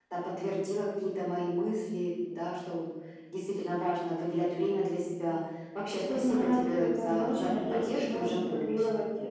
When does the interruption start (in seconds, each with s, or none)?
6.1 s